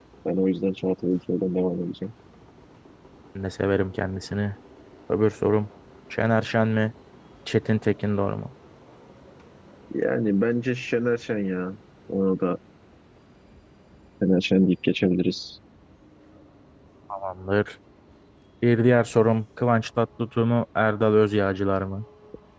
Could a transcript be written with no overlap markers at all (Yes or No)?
Yes